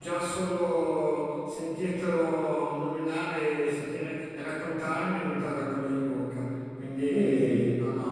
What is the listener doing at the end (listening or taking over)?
taking over